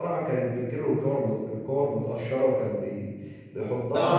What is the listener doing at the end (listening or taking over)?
taking over